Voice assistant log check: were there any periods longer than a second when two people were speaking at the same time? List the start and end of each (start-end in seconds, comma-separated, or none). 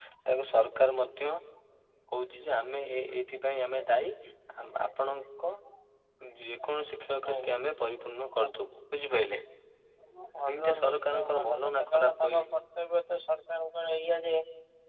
10.5-12.4